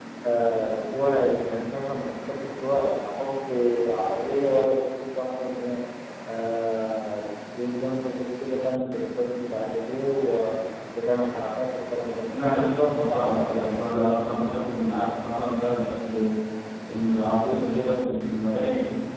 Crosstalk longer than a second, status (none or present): present